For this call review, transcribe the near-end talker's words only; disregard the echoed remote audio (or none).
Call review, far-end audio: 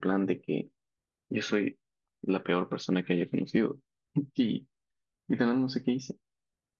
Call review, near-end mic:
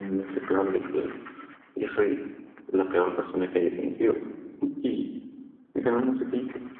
none